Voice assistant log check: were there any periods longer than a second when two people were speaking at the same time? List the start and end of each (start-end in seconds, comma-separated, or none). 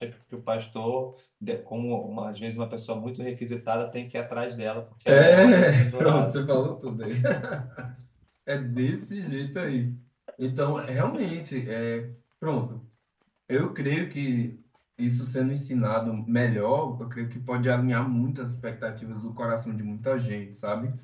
5.1-6.4